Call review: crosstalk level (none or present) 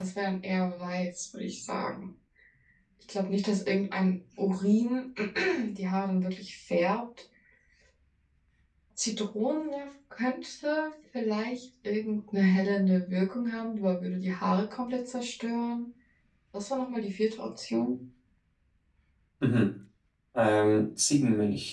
none